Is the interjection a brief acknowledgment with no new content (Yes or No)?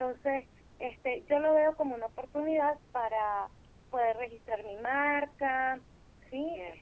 No